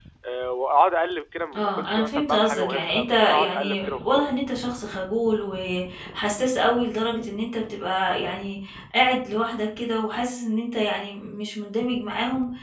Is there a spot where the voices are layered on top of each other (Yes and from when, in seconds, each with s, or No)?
Yes, from 1.5 s